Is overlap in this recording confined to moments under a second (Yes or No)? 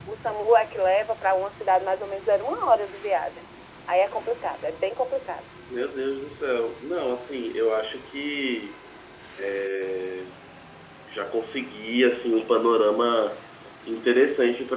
Yes